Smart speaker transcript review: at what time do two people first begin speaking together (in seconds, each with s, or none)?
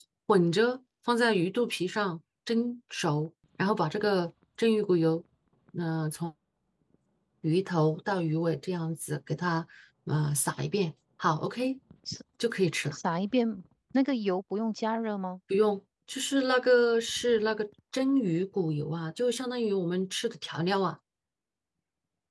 none